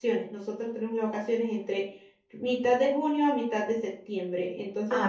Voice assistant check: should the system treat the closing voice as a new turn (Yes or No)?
No